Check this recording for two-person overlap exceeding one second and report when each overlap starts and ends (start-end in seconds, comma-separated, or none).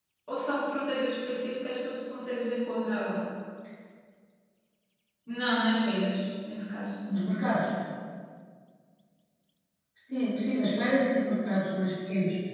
none